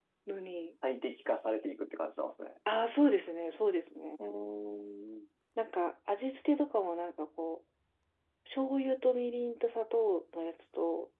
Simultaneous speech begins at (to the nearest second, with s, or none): none